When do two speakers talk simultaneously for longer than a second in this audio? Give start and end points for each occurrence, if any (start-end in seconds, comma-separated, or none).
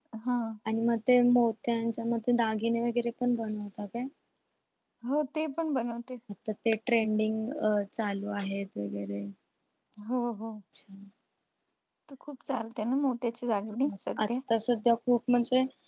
none